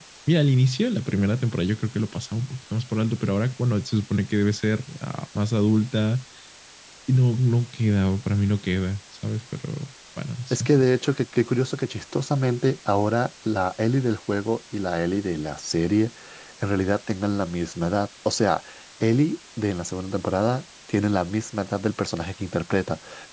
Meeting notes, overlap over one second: none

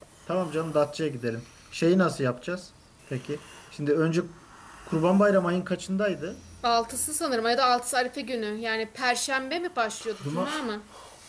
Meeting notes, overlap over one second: none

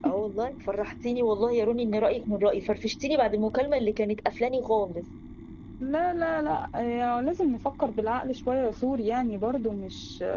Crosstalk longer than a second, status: none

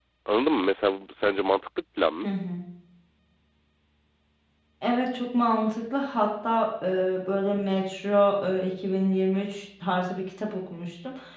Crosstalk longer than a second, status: none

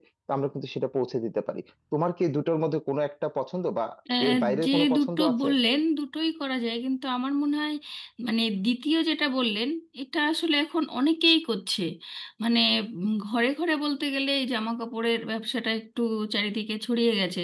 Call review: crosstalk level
present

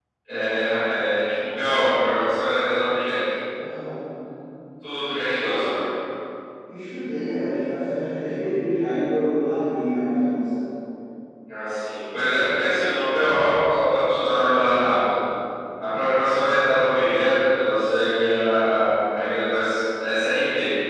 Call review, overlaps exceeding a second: none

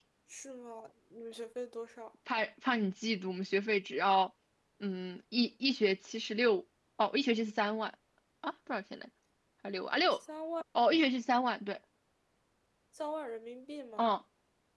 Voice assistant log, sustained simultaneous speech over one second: none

